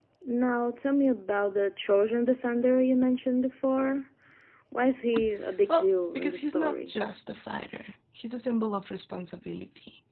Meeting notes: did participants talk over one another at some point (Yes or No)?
Yes